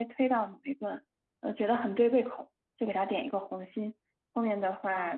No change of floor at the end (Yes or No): Yes